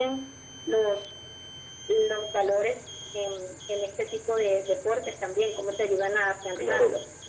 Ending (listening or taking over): taking over